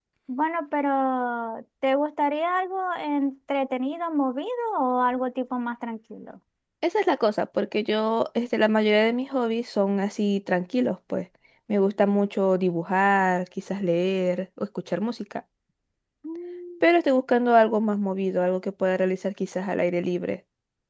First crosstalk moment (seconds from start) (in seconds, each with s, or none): none